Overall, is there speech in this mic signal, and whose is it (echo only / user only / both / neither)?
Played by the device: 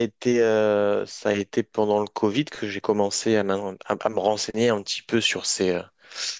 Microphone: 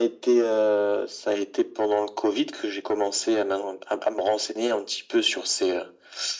echo only